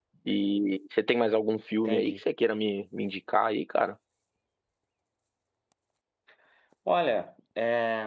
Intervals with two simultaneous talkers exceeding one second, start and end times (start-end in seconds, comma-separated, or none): none